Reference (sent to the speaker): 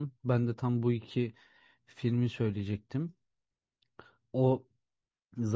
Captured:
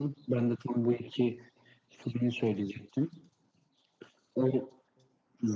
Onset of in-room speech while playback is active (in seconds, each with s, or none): none